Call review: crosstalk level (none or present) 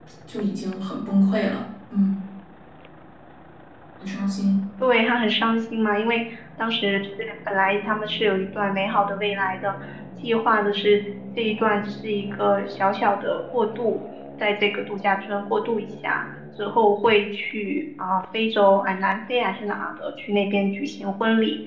none